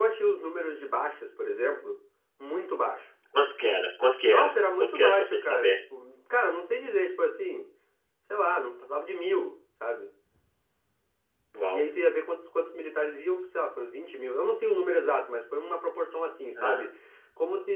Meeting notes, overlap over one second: present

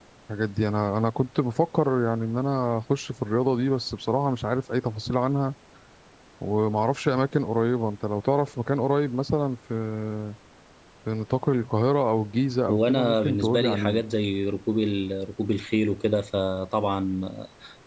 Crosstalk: present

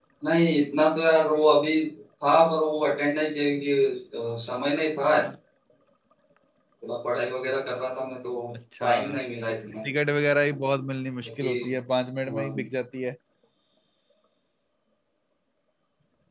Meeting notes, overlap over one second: none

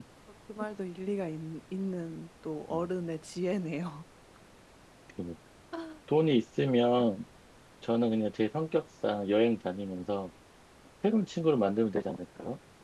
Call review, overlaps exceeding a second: none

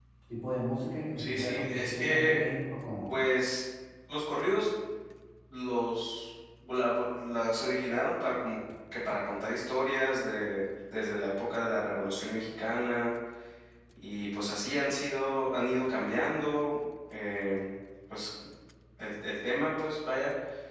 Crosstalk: present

